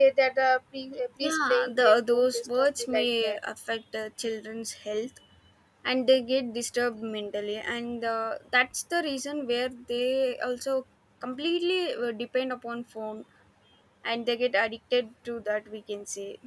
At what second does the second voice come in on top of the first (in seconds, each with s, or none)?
1.2 s